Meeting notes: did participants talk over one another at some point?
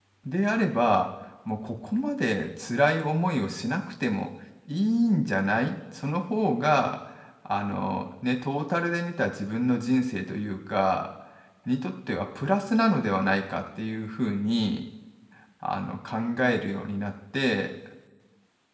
No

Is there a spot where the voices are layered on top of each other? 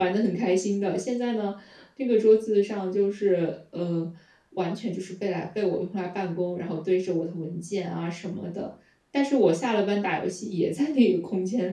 No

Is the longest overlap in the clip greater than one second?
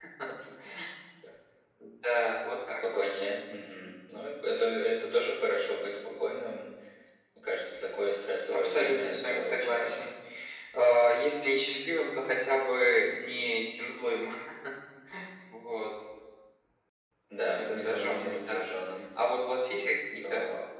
Yes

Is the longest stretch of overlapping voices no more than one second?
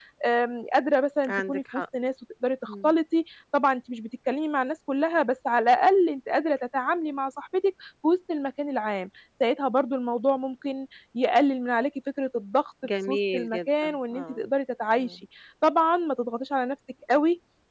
No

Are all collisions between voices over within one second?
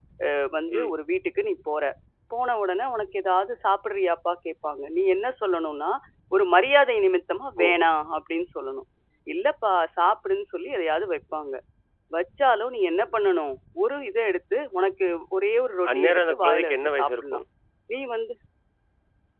No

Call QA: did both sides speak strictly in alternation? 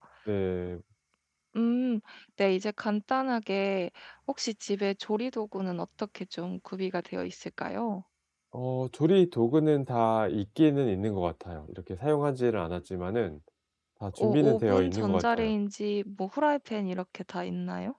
No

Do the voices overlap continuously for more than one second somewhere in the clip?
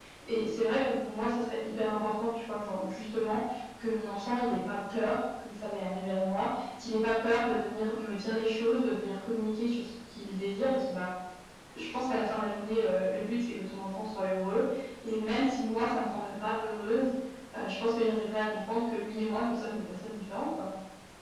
No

